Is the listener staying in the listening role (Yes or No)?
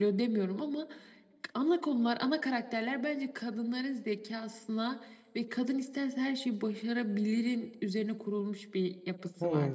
No